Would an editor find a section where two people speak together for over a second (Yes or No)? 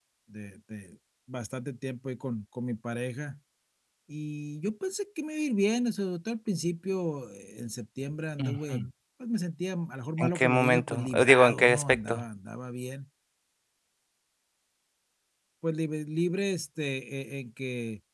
Yes